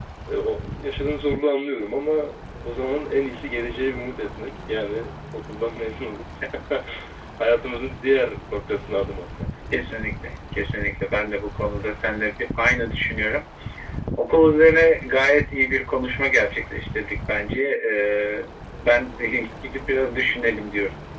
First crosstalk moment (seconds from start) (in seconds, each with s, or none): none